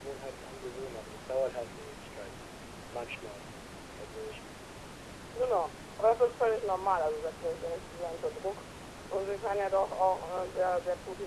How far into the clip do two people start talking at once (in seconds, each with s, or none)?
none